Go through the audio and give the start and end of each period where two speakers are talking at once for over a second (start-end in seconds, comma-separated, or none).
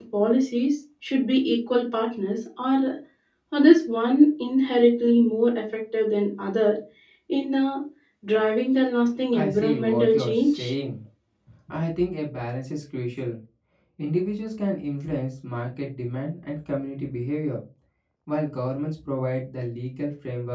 9.3-10.7